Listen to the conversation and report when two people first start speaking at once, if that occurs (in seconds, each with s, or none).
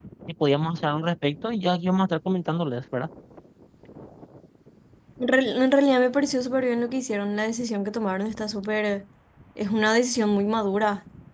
none